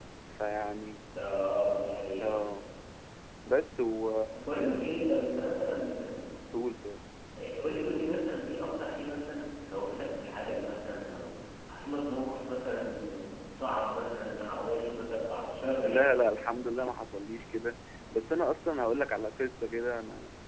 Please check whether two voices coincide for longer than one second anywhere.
No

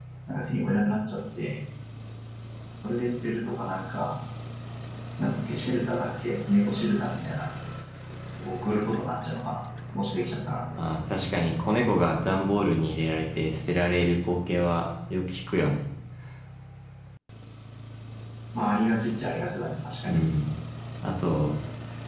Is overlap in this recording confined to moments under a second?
Yes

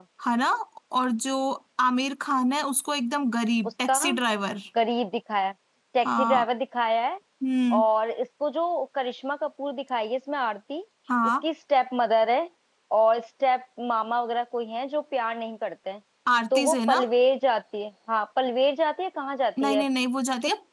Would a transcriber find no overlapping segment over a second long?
Yes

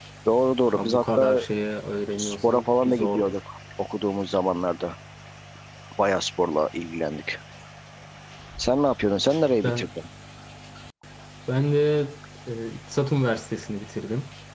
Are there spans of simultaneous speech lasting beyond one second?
Yes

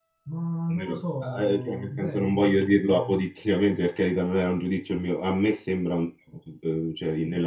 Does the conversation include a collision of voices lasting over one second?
Yes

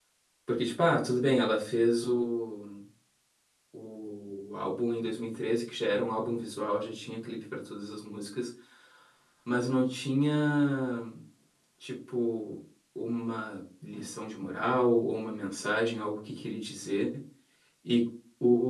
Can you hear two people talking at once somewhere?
No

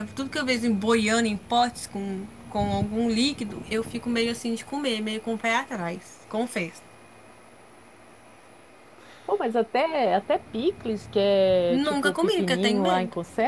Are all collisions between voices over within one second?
No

